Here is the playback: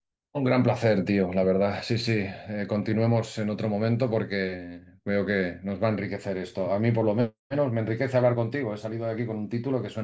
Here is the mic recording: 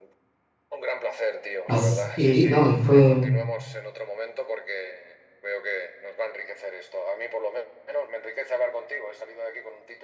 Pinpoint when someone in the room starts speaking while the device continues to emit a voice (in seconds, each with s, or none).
1.6 s